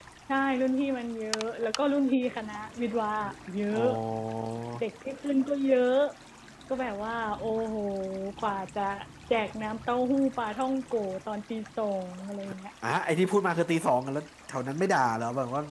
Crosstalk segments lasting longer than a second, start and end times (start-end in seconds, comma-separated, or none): none